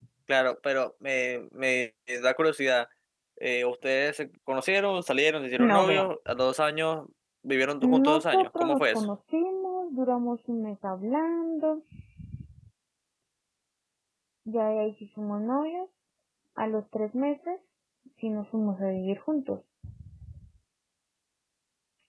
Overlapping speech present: Yes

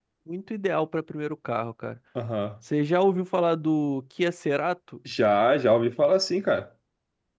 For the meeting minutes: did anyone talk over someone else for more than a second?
No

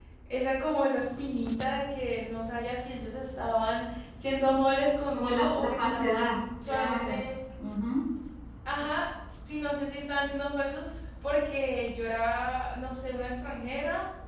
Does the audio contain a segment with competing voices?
Yes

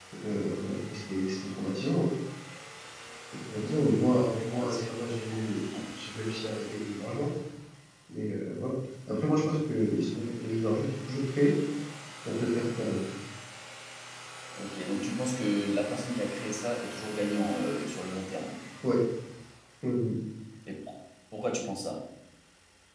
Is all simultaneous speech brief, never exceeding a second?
No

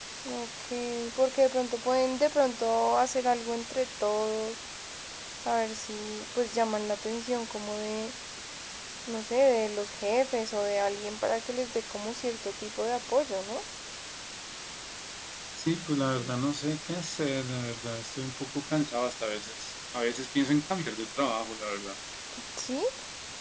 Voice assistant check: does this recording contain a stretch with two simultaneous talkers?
No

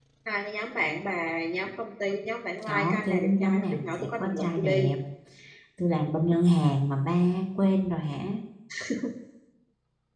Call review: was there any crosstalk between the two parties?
Yes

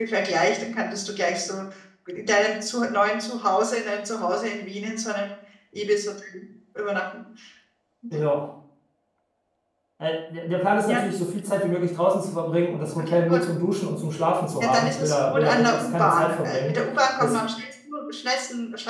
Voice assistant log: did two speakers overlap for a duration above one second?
Yes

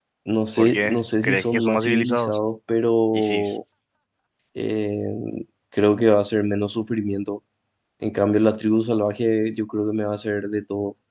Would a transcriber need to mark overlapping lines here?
Yes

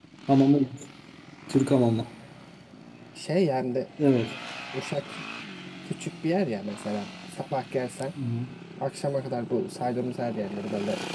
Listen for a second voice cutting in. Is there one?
No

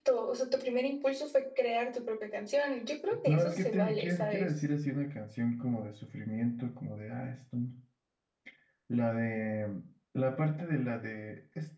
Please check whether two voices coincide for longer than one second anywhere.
Yes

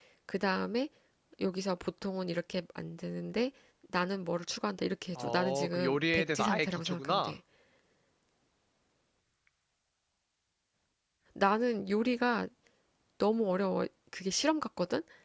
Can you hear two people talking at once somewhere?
Yes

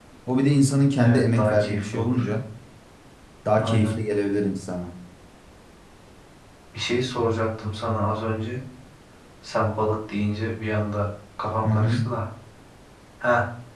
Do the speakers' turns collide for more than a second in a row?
Yes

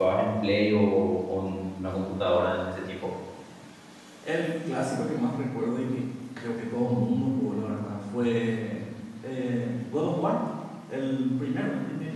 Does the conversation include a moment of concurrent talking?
No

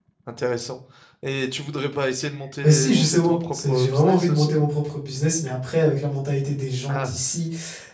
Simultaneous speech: Yes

